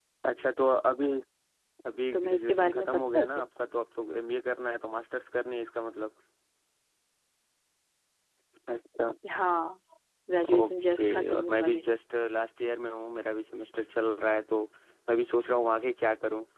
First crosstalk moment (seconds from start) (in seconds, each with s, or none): 2.1 s